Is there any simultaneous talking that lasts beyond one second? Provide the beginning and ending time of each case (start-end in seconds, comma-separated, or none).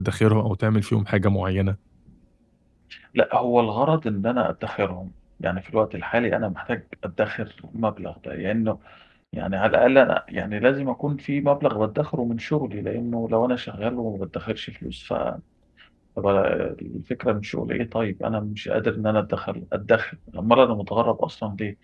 none